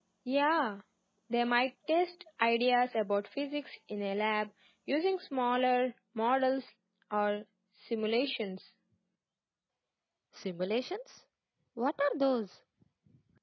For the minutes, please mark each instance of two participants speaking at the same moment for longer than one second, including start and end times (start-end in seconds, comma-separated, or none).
none